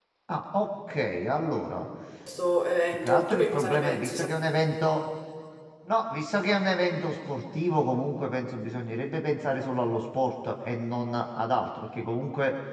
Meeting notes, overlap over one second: present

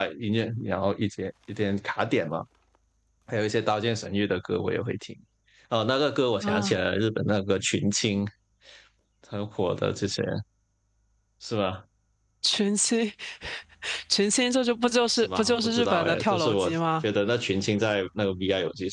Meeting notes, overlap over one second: present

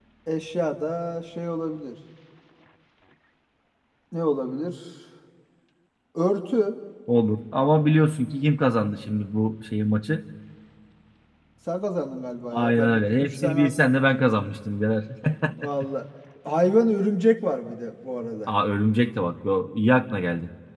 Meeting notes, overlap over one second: present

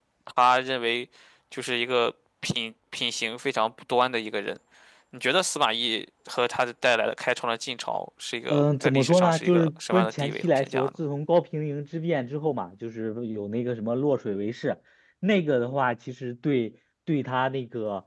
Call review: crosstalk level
present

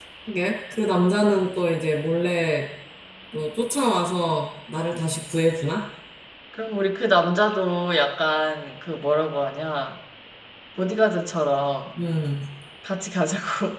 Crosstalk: none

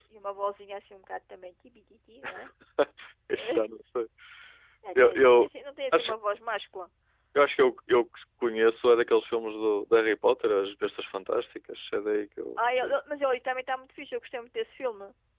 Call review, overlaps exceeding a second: none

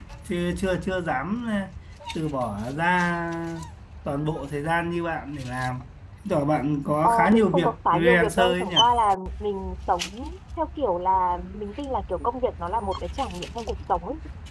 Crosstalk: present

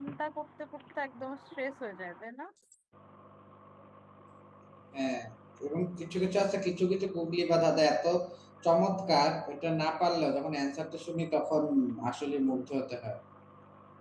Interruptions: none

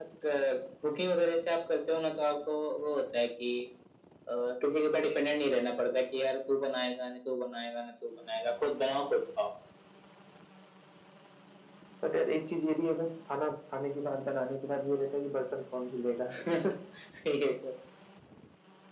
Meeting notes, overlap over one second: none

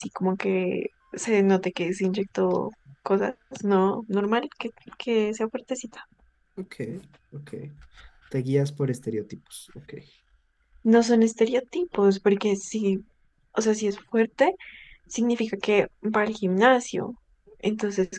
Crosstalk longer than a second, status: none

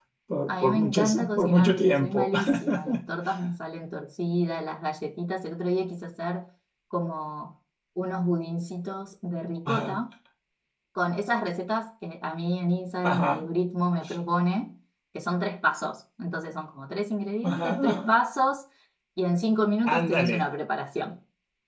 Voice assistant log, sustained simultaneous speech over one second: present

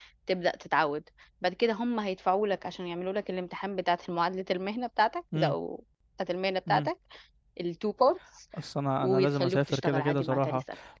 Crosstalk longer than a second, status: present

